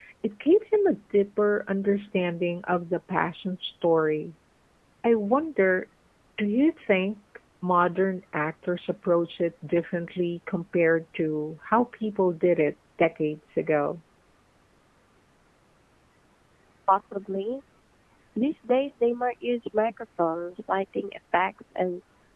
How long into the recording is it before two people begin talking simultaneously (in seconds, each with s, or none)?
none